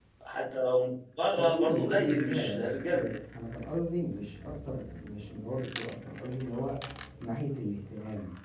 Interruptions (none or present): present